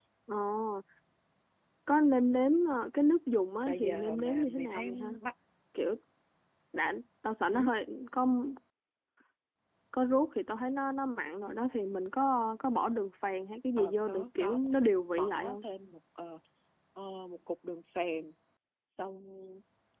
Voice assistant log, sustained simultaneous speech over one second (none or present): present